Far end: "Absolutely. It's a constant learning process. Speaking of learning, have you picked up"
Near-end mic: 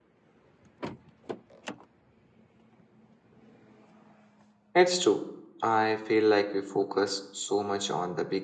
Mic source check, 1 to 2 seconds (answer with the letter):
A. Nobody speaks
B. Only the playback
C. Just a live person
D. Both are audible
A